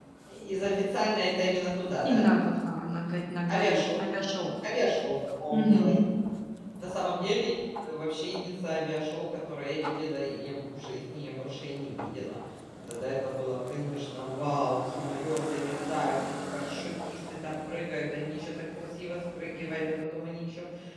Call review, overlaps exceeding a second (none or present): none